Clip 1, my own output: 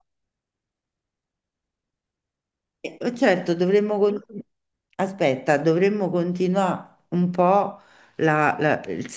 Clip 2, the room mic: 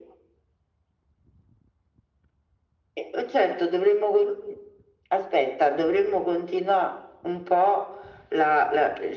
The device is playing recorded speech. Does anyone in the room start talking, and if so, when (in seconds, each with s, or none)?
none